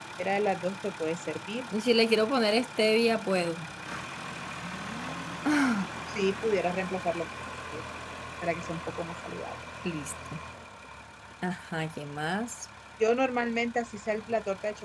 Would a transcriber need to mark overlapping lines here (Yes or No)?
No